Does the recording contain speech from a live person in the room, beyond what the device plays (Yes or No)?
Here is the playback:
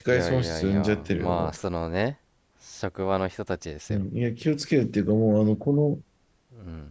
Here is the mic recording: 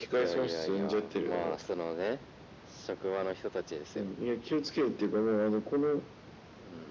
No